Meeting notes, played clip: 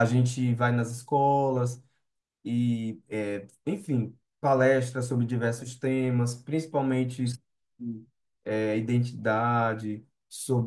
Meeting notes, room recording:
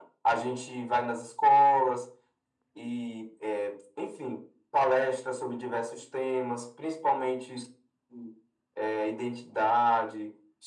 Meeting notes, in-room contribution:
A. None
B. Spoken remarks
A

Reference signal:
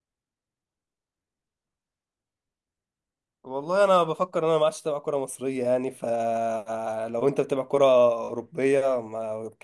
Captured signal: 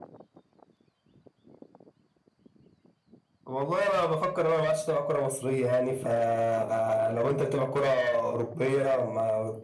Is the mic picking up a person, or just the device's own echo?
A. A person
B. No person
B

